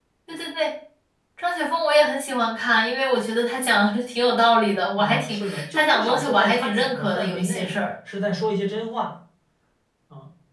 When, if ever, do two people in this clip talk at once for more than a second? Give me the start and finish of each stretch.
5.0-7.7

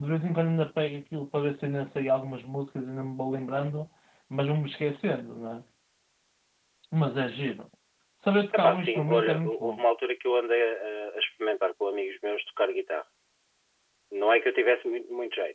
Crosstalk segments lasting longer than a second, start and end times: 8.5-9.8

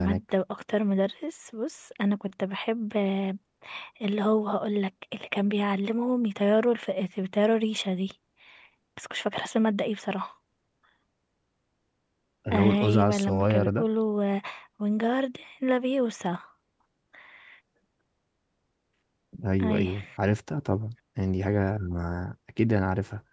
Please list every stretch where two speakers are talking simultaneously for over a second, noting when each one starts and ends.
12.5-13.8

